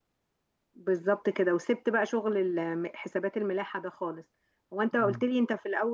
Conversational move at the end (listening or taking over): listening